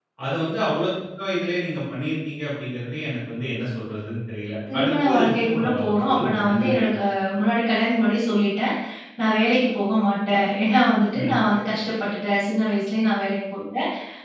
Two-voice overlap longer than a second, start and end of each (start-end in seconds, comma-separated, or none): 4.7-6.8